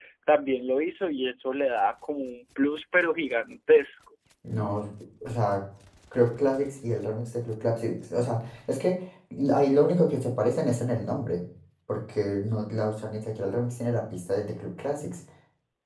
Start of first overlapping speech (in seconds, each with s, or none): none